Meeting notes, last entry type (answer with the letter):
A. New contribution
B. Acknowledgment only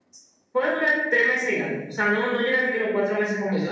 A